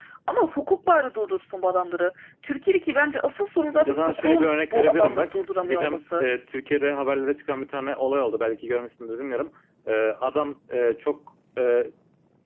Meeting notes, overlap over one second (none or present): present